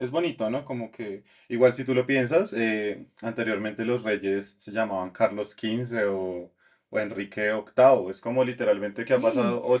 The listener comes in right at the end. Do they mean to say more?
No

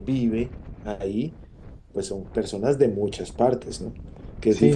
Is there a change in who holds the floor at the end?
Yes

